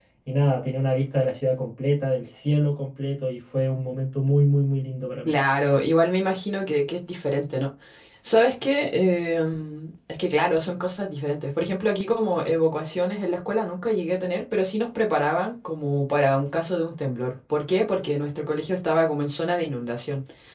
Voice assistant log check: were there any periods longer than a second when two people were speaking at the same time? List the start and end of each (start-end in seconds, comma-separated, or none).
none